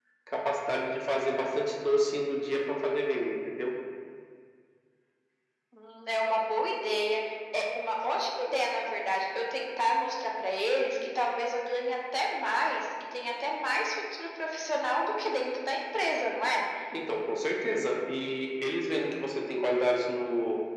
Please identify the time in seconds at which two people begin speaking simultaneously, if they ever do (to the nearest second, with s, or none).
none